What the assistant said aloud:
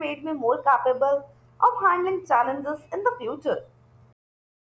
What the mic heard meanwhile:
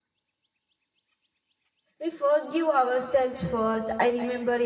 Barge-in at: 2.0 s

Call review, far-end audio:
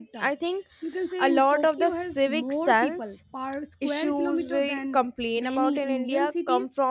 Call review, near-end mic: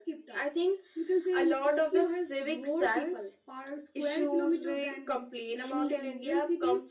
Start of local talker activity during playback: none

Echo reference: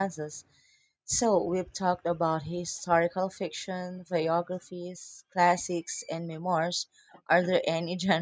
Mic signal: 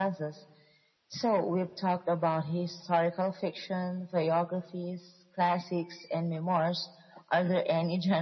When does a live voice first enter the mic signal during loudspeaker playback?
none

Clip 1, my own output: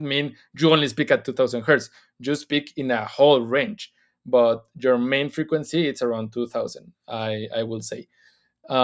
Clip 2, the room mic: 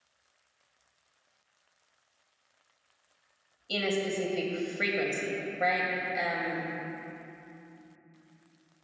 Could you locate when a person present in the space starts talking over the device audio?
3.7 s

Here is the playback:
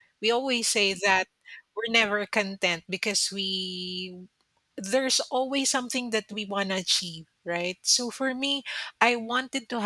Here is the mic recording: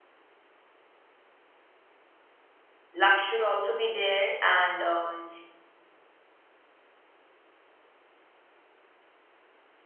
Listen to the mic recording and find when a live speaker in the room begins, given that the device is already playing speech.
2.9 s

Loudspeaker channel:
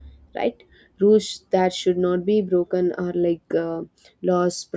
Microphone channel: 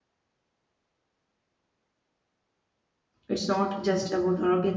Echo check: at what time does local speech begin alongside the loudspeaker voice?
3.3 s

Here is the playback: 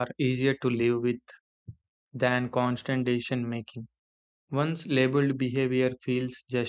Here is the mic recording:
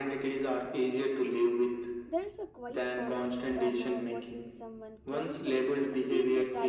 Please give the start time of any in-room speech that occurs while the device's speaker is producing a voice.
2.1 s

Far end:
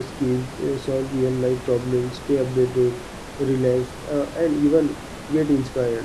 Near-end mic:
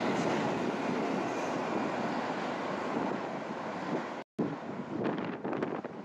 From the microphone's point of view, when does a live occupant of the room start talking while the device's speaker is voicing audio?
none

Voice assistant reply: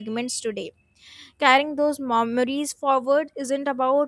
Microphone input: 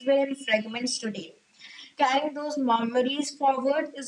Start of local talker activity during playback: none

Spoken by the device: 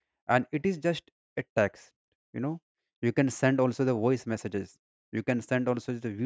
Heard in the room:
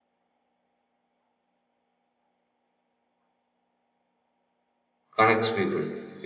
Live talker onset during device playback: 5.2 s

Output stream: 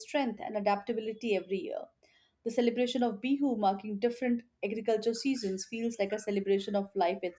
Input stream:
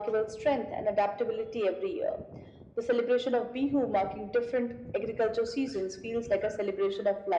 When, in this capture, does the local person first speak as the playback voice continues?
none

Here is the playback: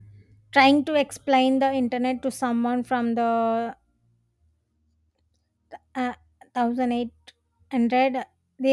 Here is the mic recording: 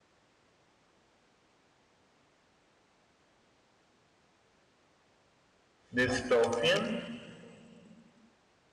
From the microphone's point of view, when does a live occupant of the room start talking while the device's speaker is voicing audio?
5.9 s

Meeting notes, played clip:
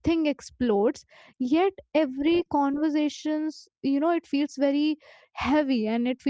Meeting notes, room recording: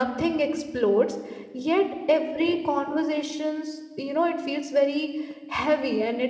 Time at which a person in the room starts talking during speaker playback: none

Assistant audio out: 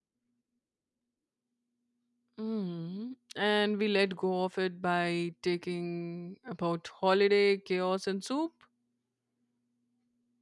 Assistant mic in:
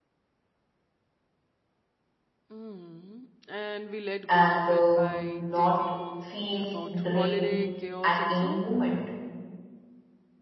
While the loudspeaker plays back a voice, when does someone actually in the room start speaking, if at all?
4.3 s

